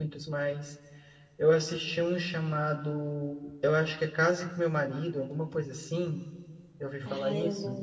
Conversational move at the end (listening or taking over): taking over